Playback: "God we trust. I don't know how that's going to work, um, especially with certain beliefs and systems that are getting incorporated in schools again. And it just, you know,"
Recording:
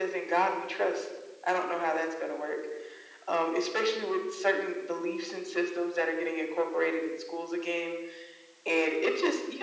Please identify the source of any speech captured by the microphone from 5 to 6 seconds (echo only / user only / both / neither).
echo only